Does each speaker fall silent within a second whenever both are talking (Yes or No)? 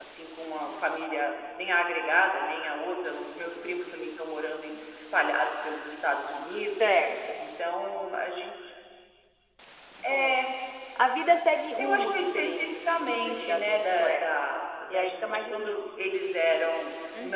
No